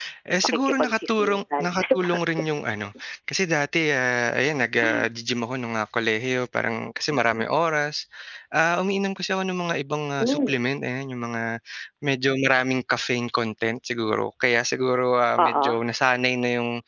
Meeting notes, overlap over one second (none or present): present